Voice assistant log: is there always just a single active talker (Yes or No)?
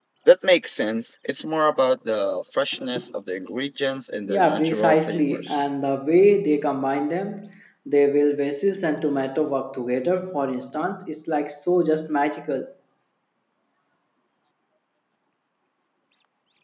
No